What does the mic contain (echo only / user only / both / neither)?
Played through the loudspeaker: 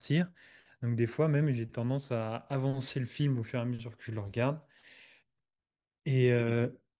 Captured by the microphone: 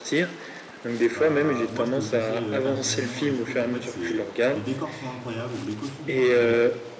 both